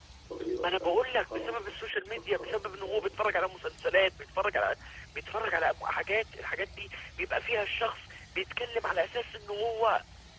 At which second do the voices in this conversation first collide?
0.6 s

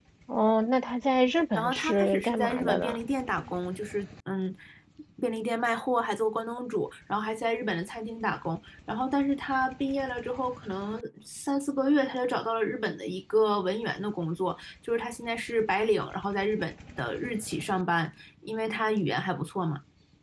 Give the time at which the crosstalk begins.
1.5 s

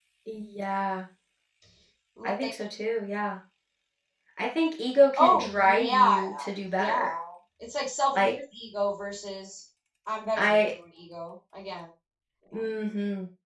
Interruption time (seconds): 5.2 s

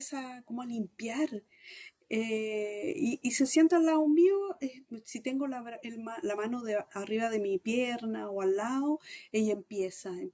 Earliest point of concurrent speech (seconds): none

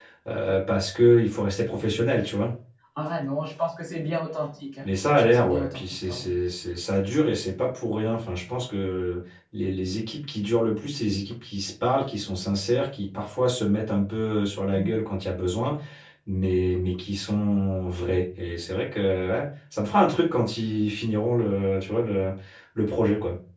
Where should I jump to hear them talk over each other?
4.8 s

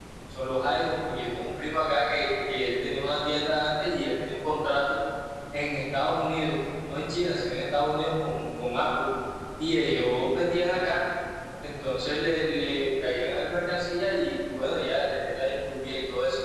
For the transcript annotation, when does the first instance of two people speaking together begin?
none

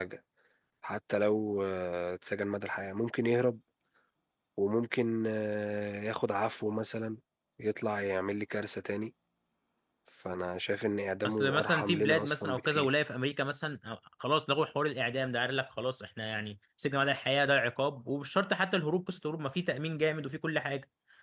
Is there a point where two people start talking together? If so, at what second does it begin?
11.2 s

